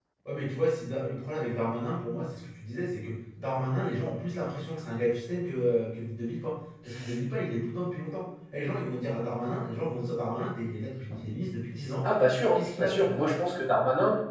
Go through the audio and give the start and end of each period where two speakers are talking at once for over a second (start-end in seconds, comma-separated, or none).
none